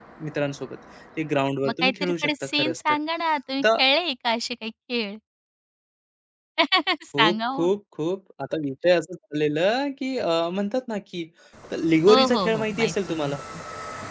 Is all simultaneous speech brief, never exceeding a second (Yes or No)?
No